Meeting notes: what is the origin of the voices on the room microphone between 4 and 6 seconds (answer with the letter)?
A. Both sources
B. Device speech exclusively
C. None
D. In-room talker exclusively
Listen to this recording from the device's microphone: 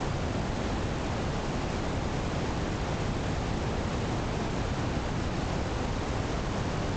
C